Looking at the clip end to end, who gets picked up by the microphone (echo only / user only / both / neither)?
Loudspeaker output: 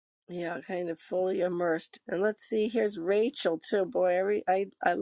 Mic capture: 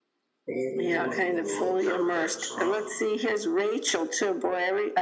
both